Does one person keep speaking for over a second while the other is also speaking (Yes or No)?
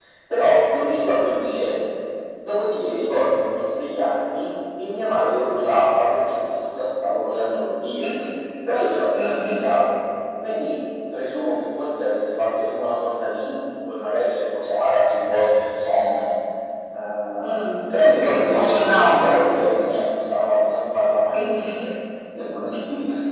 Yes